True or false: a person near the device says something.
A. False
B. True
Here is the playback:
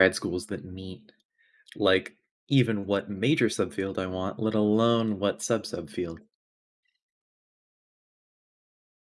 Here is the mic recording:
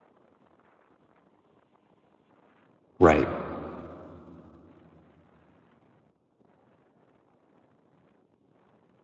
B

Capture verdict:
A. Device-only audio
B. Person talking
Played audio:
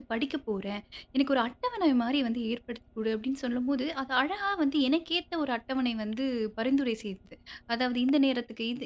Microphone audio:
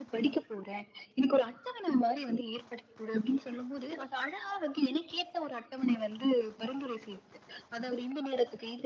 A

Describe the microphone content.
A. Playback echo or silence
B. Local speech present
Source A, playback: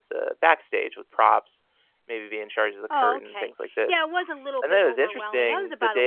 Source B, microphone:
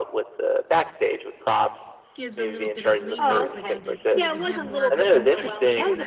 B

